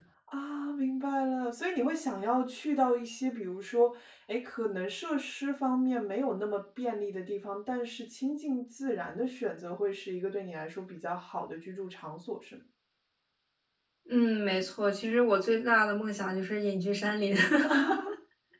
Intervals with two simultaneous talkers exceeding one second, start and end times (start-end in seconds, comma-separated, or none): none